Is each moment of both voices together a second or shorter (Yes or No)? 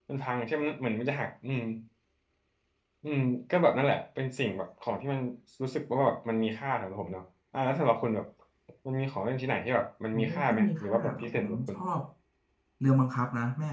No